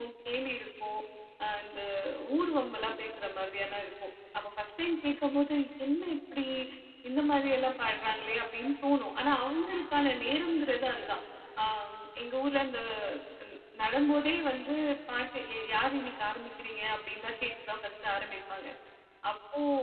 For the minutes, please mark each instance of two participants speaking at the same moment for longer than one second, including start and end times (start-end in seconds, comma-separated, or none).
none